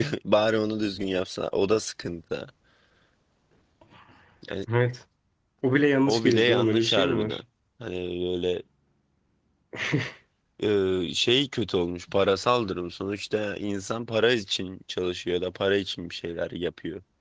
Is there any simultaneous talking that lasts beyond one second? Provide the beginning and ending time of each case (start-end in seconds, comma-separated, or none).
6.1-7.4